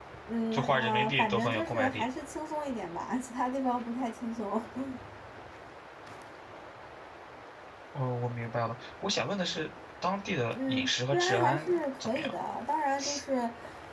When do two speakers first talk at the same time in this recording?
0.5 s

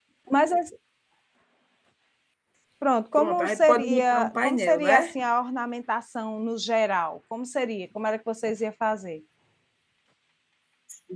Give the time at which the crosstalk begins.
3.2 s

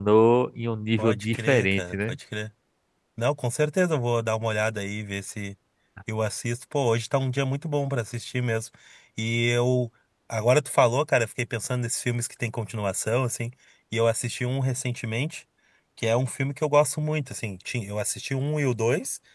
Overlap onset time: 1.0 s

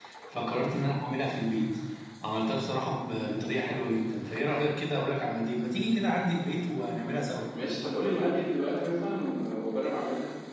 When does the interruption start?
none

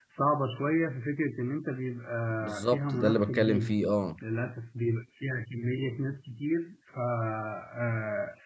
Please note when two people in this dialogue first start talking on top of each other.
2.4 s

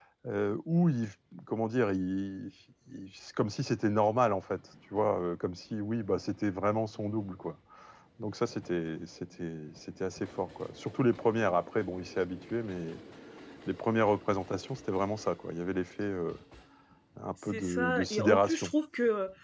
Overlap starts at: 17.5 s

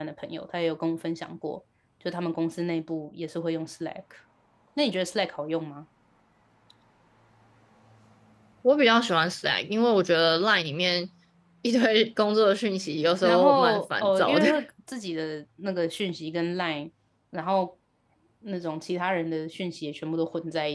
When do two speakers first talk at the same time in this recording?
13.2 s

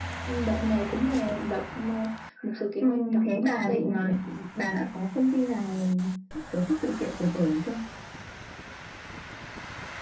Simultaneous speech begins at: 2.8 s

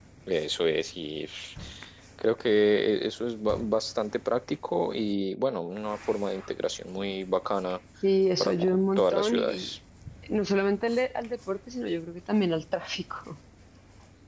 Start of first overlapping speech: 8.4 s

